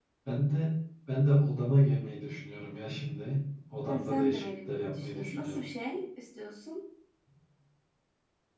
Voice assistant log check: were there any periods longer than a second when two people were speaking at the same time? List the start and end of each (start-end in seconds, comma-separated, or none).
3.9-5.6